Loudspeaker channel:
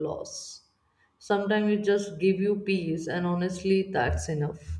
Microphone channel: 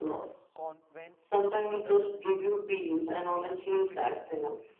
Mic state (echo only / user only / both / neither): both